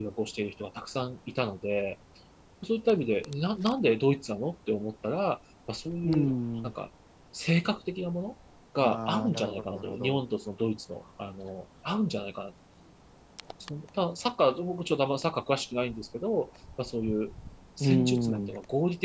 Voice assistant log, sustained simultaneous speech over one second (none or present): present